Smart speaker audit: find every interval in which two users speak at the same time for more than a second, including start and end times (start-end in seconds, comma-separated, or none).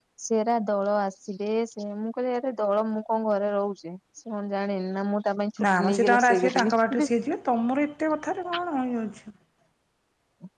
5.8-7.1